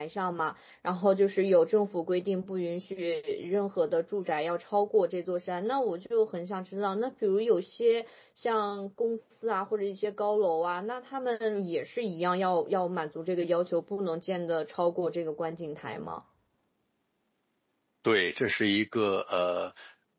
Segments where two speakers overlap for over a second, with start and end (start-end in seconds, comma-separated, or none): none